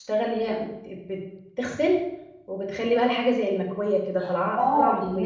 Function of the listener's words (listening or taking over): taking over